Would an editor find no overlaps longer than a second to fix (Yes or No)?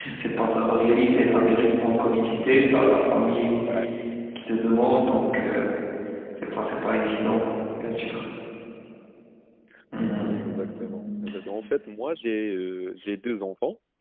Yes